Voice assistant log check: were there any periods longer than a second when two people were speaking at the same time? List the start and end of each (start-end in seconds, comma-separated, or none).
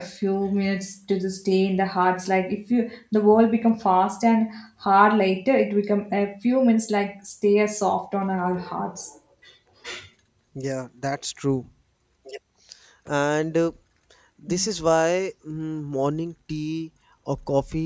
none